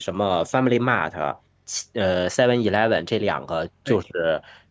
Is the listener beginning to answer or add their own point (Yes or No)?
No